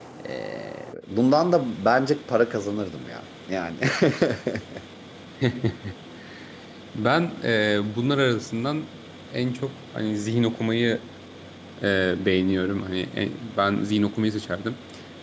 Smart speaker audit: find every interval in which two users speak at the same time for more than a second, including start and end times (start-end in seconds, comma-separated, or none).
none